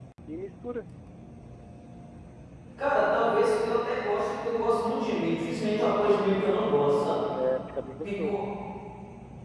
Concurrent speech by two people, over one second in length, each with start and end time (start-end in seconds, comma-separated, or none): none